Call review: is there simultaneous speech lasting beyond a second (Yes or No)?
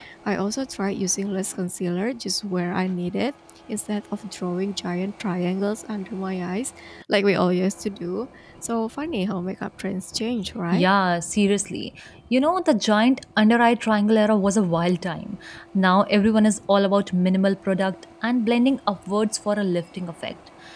No